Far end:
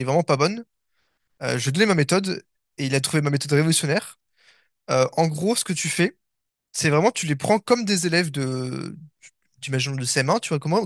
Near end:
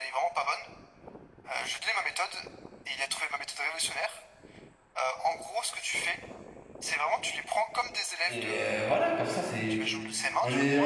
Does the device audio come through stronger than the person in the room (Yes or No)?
No